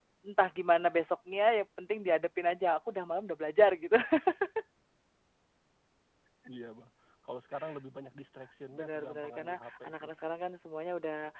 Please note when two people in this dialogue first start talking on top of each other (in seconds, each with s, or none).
8.7 s